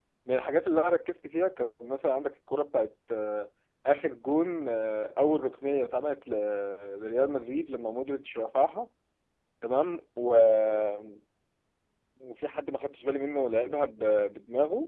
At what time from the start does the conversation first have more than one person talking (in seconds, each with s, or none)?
none